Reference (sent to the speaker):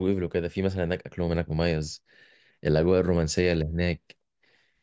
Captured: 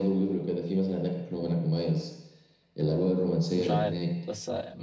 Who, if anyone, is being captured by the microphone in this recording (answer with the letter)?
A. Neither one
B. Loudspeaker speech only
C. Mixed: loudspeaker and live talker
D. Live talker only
C